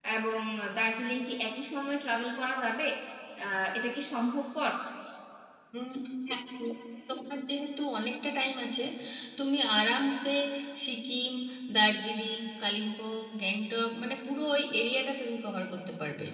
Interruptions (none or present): none